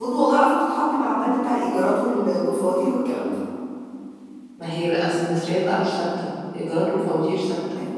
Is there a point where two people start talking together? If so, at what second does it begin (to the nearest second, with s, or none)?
none